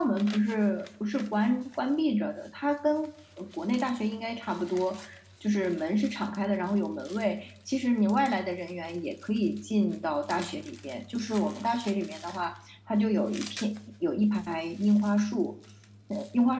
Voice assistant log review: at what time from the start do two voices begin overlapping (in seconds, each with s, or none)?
none